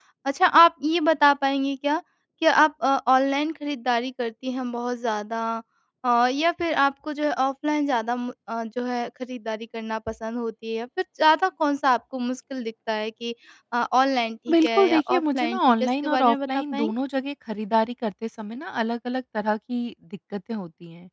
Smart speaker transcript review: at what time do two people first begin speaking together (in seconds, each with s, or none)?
14.5 s